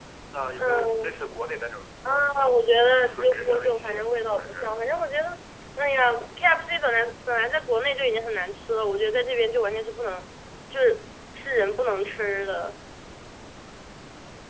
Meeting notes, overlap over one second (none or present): present